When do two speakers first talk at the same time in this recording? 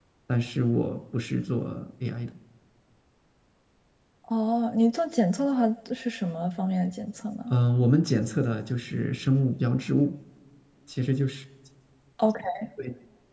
none

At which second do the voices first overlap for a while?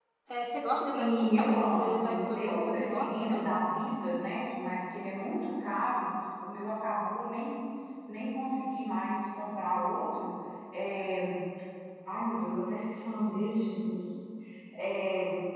0.9 s

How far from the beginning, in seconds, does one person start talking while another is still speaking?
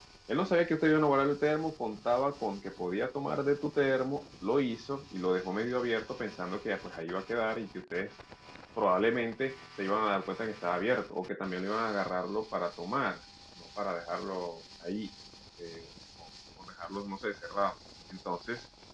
none

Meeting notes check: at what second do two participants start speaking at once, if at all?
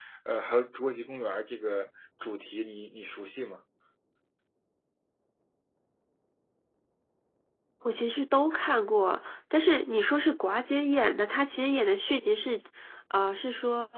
none

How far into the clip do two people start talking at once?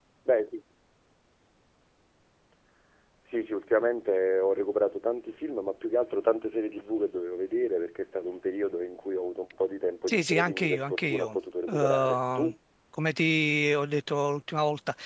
10.1 s

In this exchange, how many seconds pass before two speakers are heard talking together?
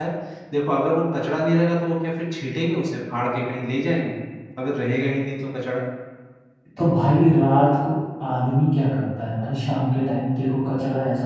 none

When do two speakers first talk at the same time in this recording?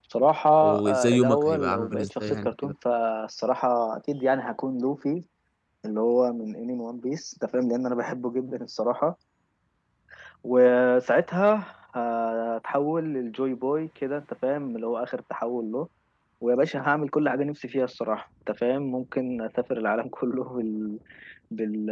0.8 s

